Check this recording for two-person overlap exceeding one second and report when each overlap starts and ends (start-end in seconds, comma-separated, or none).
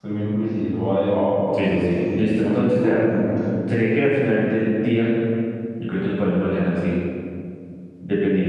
1.6-3.0